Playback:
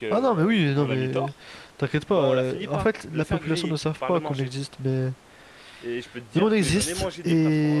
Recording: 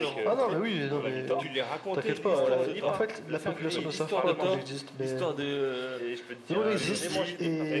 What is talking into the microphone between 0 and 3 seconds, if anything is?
both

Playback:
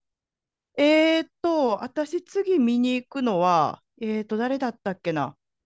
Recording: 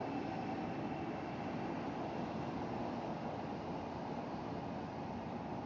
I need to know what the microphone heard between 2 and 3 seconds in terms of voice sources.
neither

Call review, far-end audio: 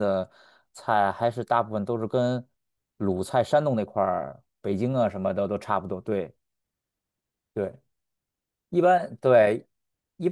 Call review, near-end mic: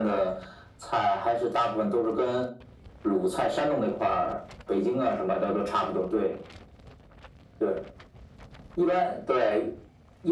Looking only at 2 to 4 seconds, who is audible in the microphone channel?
echo only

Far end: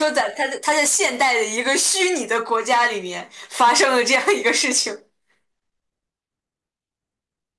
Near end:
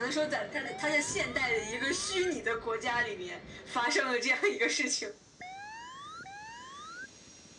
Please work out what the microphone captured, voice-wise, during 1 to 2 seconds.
echo only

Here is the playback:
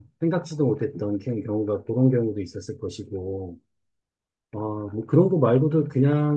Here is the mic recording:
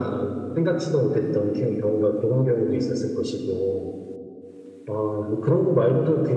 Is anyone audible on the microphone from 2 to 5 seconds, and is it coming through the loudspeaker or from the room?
echo only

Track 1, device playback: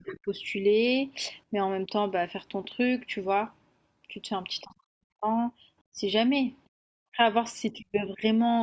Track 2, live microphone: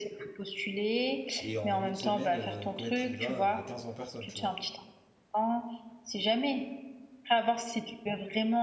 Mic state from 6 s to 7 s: echo only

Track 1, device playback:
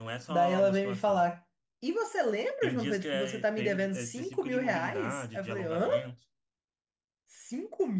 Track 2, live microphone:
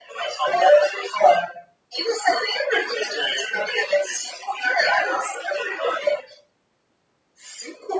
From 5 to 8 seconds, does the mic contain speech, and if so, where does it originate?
echo only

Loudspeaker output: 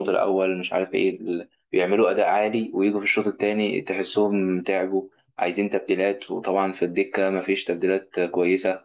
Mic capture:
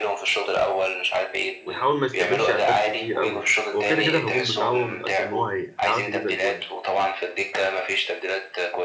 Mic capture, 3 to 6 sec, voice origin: both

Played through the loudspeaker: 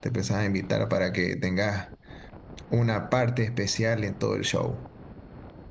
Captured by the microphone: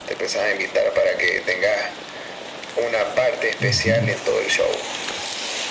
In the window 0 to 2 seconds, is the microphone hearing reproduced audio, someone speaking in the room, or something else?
echo only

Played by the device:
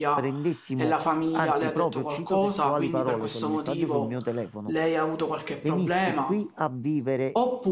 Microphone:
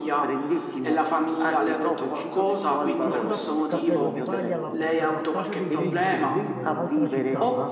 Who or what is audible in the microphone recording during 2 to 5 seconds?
both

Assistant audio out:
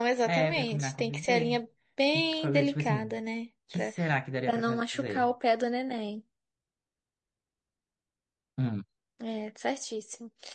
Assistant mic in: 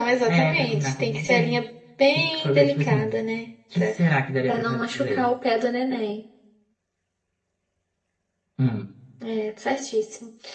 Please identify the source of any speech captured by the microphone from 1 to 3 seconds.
echo only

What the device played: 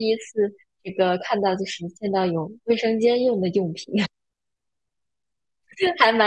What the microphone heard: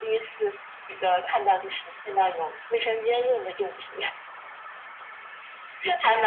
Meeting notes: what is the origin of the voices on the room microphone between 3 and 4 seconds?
echo only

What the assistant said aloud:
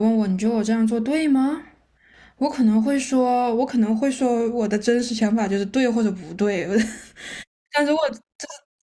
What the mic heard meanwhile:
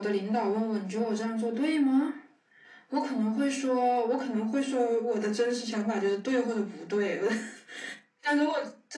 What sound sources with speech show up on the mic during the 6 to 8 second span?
echo only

